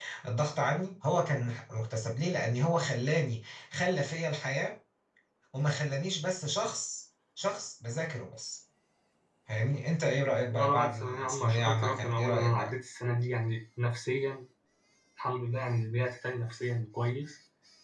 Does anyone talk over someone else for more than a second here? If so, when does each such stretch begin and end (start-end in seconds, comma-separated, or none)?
10.5-12.8